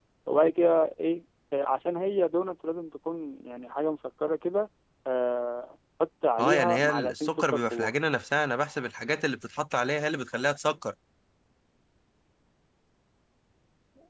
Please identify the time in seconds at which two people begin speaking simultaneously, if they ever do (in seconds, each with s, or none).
6.4 s